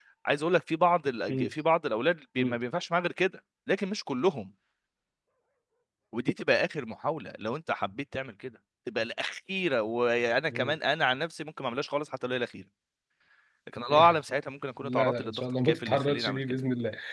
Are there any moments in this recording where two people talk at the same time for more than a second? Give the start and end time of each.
14.8-16.4

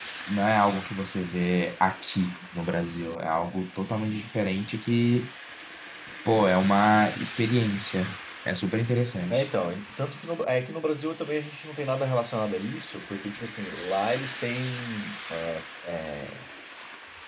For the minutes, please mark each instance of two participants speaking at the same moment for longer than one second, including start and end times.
none

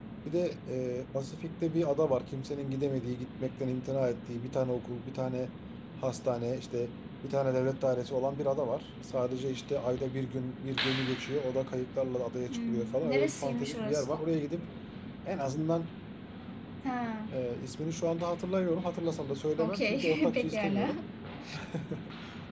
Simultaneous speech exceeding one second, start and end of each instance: 12.5-14.2, 19.6-21.0

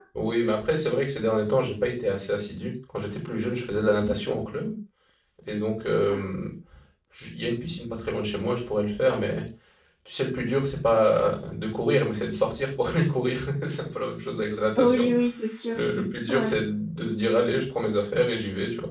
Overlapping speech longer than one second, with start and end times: none

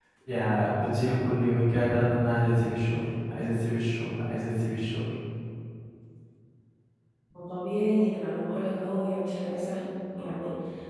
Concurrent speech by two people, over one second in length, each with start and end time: none

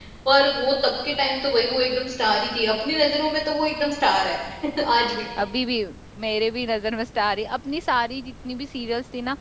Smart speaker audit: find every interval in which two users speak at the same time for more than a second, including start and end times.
none

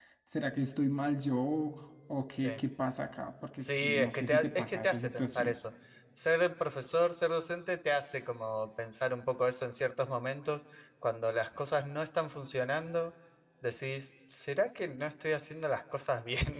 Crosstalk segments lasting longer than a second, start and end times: 3.6-5.5

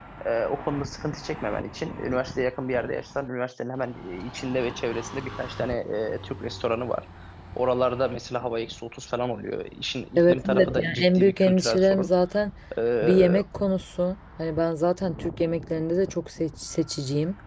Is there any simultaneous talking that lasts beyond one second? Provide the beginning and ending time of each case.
10.2-12.1

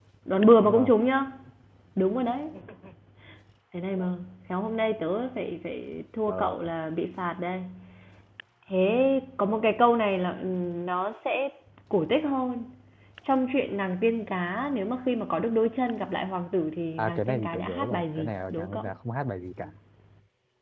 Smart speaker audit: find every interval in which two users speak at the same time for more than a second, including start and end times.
17.0-18.9

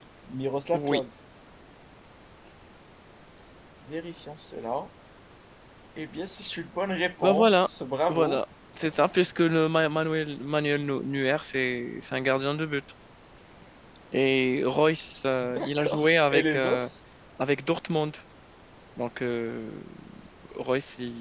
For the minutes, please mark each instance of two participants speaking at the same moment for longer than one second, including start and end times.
15.4-16.9

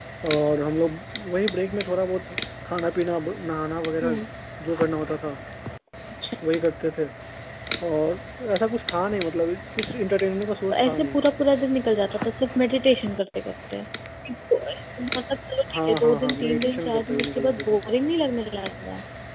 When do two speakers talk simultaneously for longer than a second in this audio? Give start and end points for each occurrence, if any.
15.7-17.8

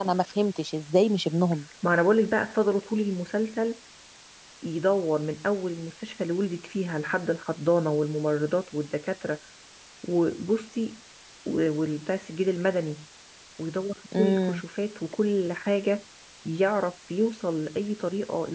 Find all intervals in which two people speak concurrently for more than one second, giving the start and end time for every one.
none

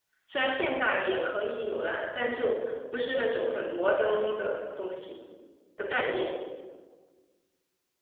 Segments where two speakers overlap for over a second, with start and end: none

